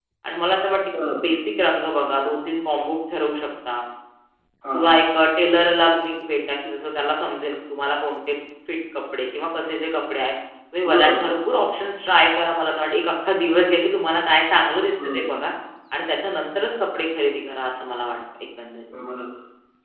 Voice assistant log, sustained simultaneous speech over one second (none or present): none